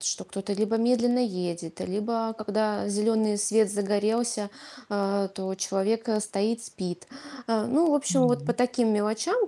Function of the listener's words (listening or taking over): listening